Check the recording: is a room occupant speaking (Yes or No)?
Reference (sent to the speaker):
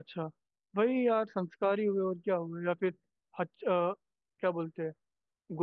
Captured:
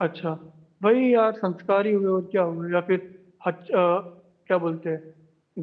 No